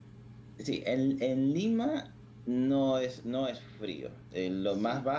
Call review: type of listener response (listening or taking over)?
listening